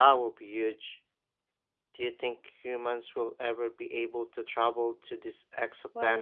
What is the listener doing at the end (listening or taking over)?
taking over